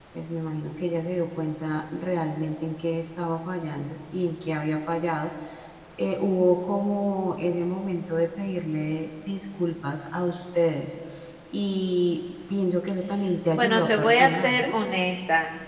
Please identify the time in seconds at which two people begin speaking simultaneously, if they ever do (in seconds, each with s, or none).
13.5 s